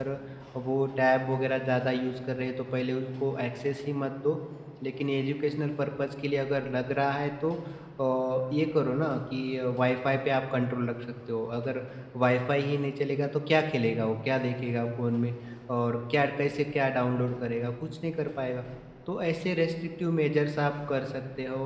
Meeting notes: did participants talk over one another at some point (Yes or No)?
No